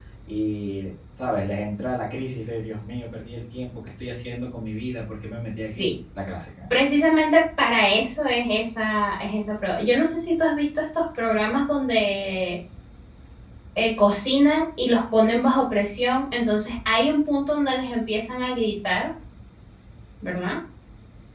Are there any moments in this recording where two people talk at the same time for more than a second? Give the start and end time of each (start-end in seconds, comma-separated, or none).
none